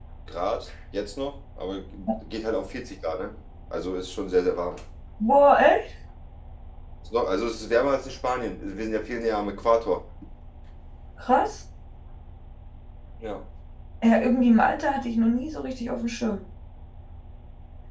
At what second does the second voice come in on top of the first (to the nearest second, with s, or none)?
none